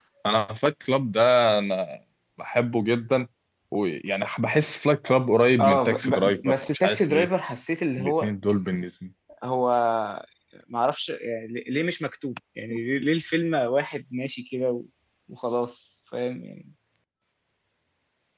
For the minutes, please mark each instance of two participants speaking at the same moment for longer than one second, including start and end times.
5.6-7.3

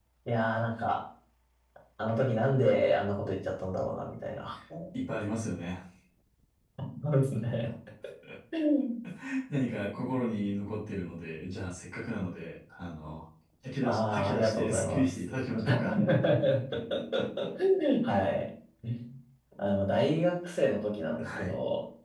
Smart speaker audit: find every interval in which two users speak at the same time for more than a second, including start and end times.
13.8-15.1

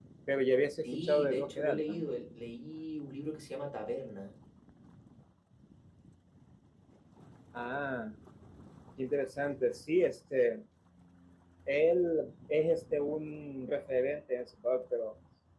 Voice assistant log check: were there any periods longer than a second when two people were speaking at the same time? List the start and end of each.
0.8-2.0

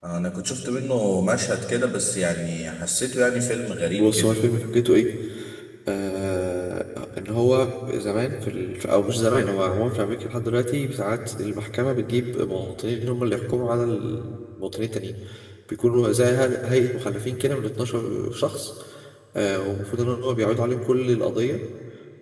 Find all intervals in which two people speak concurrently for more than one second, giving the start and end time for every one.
none

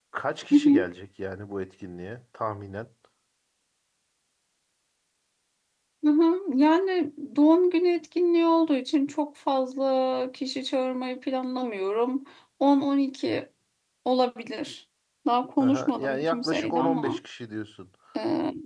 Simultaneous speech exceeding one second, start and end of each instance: 15.6-17.2

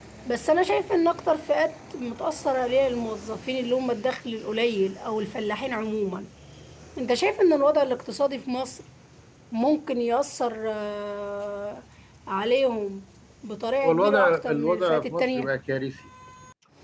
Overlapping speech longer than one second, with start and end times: 13.8-15.5

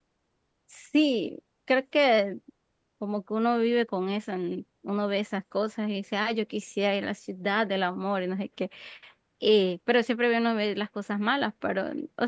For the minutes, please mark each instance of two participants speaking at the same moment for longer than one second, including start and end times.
none

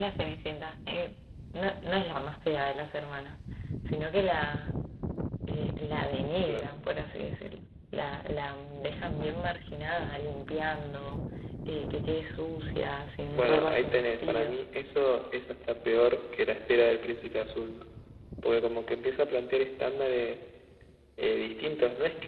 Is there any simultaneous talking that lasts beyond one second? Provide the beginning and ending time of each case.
13.3-14.6

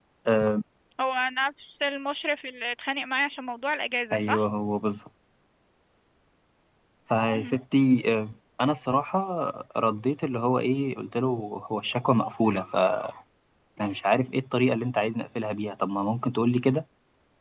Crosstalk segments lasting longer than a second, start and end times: none

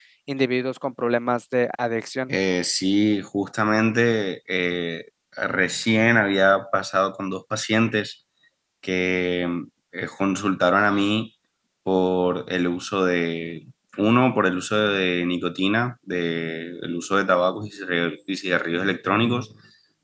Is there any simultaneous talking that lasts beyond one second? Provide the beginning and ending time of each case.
none

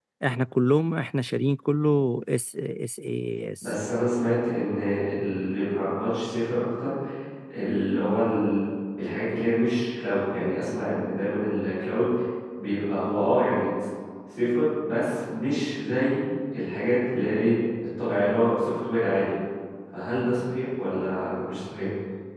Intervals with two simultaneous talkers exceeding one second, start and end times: none

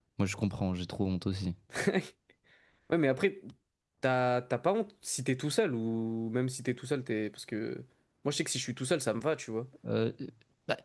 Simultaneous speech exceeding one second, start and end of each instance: none

